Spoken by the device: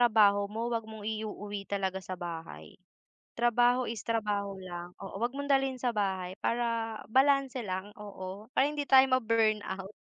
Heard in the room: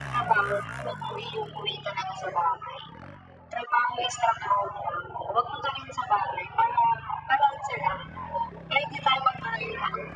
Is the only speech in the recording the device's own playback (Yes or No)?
Yes